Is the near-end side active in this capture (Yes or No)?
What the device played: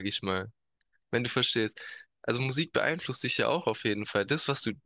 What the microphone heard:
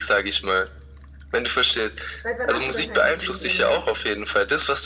Yes